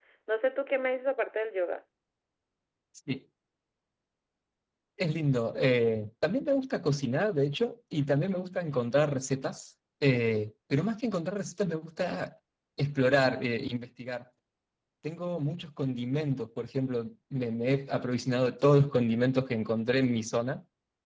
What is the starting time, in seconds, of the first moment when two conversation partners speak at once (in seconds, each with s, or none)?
none